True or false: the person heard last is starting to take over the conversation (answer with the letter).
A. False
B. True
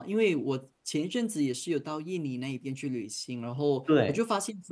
A